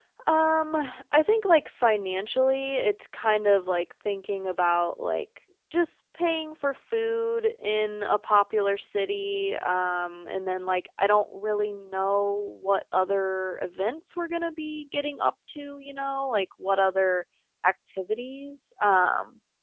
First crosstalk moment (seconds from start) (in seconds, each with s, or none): none